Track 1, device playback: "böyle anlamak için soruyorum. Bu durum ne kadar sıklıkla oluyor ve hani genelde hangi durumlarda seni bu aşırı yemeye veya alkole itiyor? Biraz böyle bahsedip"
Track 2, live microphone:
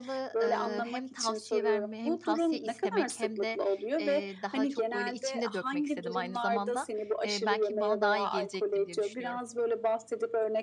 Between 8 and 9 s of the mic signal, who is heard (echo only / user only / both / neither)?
both